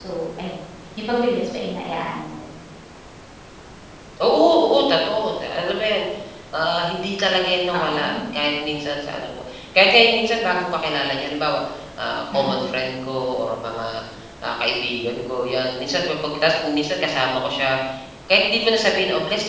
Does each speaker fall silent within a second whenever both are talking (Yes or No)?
Yes